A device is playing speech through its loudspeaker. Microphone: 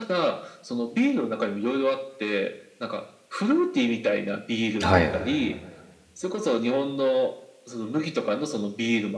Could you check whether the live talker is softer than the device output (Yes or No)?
No